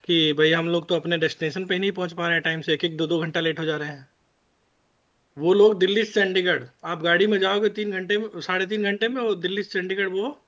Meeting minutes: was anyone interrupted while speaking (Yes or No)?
No